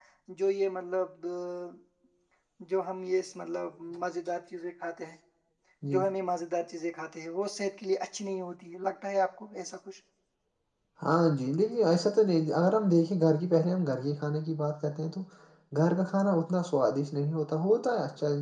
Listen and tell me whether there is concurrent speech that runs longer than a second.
No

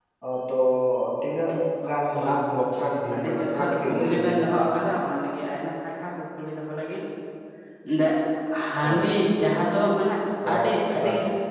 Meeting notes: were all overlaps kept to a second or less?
No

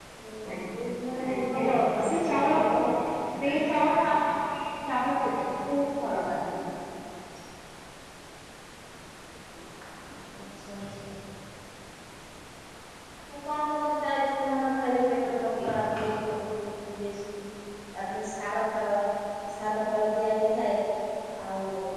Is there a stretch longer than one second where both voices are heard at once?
Yes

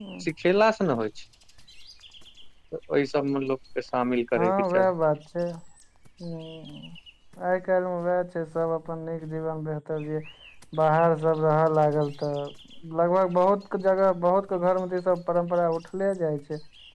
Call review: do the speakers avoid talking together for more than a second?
Yes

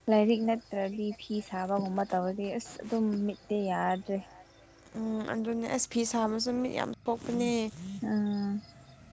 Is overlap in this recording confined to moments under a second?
Yes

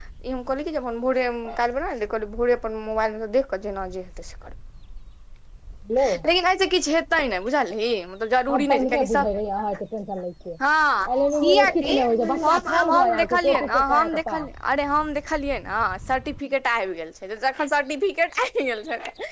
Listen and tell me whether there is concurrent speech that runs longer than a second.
Yes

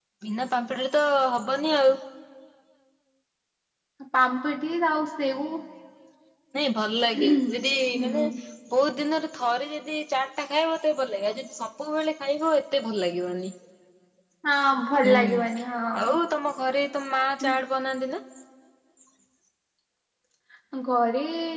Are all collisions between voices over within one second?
Yes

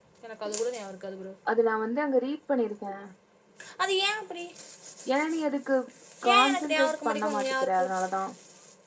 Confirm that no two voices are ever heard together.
No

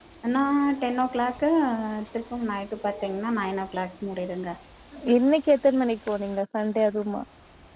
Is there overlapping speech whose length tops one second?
No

